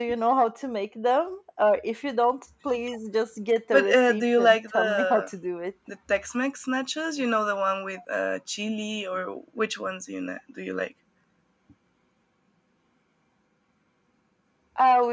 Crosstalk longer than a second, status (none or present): present